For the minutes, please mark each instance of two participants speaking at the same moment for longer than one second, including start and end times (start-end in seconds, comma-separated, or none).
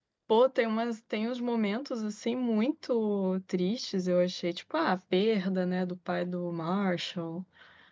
none